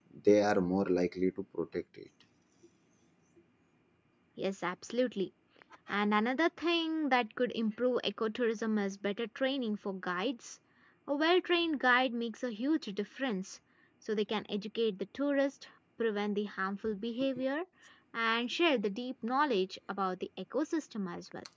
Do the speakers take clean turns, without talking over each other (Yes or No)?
Yes